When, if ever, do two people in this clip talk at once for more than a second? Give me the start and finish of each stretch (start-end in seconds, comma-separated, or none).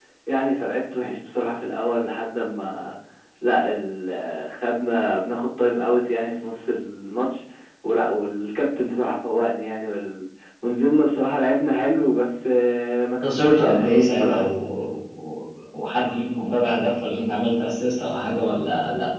13.2-14.5